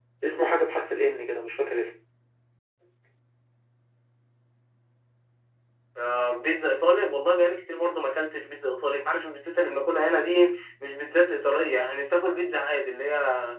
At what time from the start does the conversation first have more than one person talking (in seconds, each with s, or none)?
none